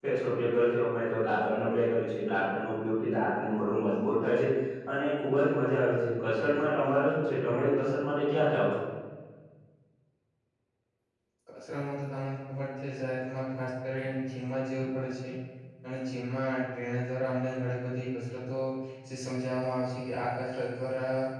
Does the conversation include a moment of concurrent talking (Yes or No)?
No